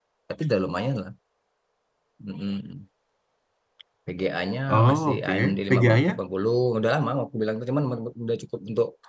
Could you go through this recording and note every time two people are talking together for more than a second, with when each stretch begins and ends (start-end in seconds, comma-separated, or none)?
4.7-6.2